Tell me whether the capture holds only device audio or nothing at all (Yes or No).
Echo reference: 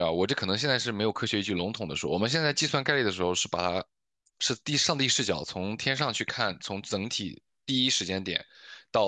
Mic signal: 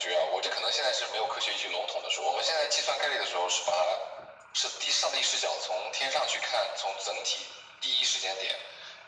Yes